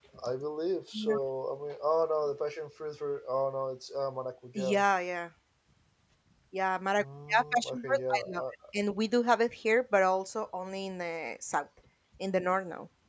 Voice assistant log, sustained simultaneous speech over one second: present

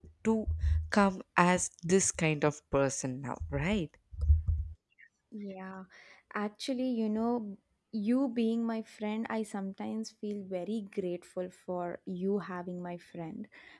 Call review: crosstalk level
none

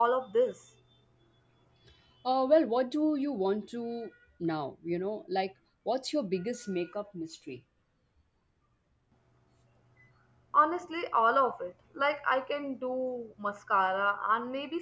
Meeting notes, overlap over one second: none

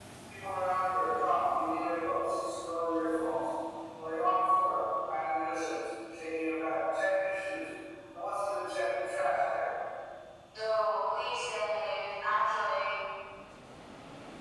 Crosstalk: none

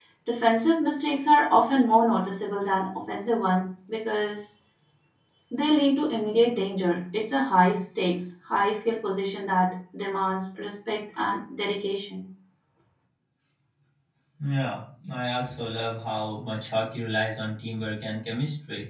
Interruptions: none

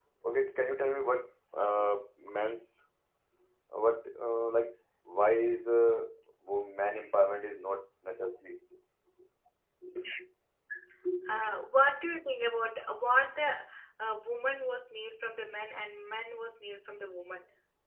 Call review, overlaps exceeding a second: none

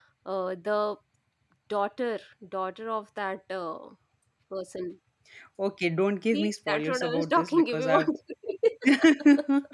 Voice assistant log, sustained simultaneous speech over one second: present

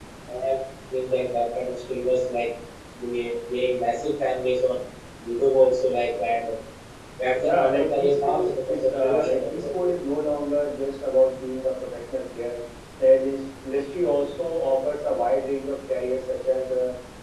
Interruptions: present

